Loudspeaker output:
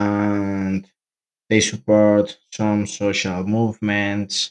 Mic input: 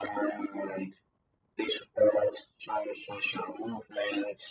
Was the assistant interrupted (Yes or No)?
No